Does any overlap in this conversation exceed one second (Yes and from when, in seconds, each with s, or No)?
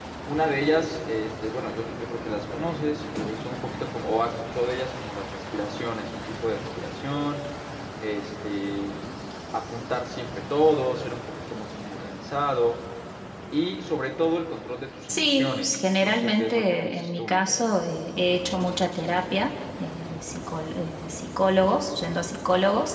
Yes, from 15.1 s